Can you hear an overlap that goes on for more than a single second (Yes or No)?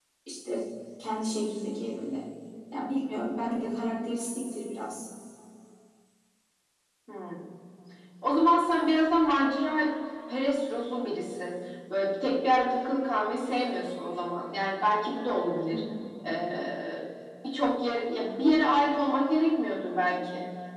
No